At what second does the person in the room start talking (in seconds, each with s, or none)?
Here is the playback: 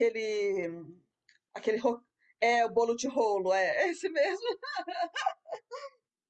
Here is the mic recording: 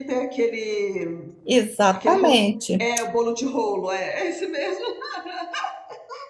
1.4 s